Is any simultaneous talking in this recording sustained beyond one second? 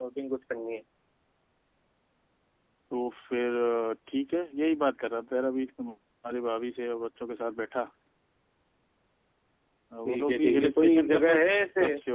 Yes, from 10.0 s

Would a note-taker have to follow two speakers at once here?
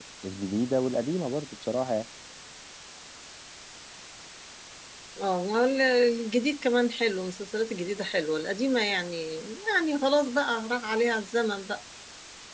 No

